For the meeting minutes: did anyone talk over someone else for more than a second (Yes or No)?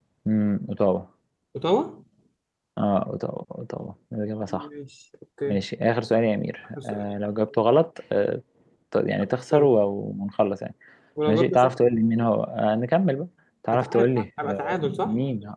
Yes